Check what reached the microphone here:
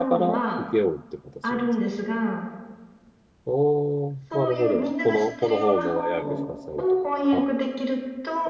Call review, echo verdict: present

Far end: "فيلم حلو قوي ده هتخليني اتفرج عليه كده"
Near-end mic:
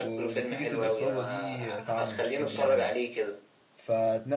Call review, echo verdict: present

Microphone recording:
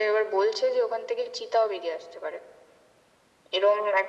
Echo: present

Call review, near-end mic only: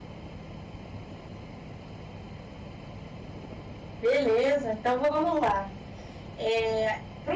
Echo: none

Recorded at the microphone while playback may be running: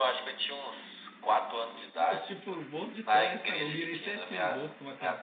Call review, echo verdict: present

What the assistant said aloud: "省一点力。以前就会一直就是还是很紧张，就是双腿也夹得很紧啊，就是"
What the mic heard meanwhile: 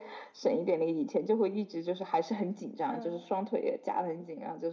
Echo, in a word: present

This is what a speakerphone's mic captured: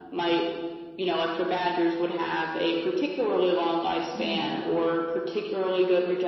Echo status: present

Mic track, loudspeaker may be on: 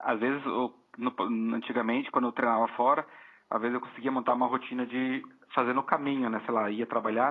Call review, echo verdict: present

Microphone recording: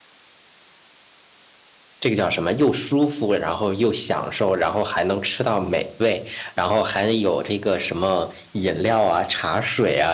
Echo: none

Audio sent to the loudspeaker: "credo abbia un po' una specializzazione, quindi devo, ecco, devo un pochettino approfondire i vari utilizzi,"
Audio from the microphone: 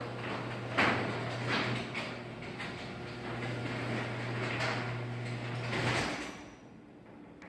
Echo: none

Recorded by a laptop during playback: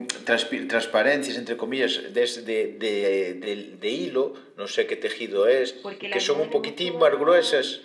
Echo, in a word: present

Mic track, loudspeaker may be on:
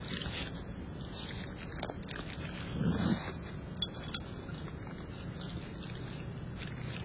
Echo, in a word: none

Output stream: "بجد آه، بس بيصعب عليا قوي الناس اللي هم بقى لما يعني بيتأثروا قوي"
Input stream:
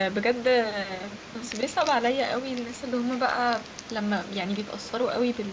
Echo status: present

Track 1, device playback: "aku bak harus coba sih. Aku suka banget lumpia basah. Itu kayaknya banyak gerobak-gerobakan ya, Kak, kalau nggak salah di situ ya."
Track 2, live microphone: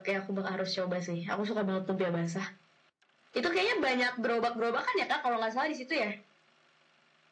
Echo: present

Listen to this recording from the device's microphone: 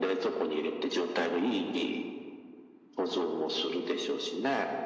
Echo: present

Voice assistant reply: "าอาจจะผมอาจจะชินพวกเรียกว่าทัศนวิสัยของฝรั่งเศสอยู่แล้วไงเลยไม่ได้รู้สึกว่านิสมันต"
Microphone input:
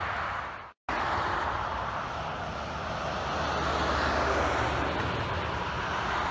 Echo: none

